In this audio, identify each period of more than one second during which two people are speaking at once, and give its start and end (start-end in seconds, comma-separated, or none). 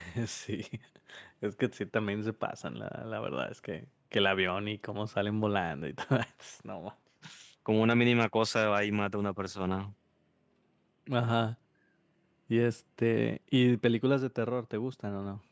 none